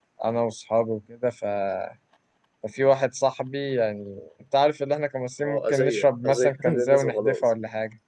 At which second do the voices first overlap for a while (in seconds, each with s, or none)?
5.4 s